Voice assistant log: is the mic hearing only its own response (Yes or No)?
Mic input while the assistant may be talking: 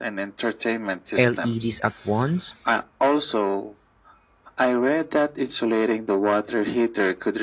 No